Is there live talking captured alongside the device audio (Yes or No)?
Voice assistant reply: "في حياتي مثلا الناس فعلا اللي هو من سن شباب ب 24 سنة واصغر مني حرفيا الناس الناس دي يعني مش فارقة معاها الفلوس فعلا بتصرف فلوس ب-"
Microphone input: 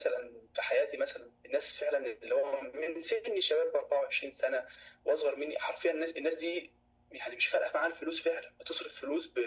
No